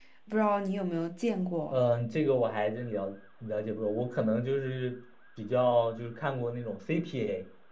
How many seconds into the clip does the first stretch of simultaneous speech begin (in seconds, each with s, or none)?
none